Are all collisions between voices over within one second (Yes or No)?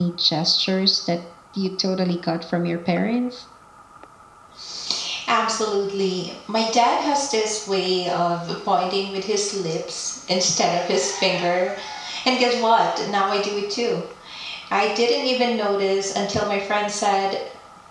Yes